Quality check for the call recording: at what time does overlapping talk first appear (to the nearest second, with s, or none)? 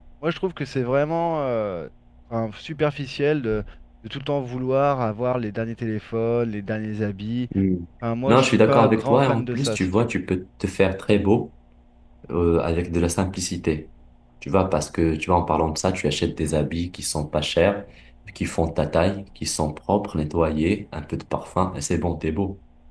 8 s